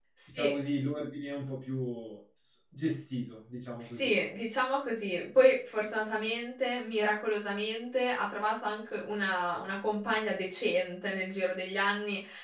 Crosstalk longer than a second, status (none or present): none